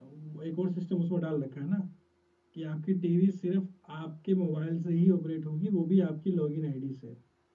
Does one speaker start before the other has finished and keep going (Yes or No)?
No